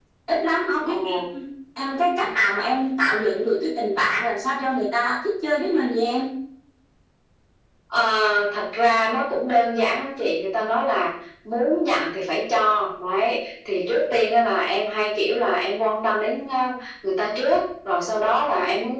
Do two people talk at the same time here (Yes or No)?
No